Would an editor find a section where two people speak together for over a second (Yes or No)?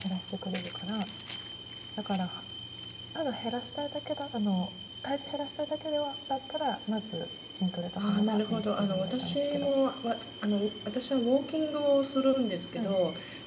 Yes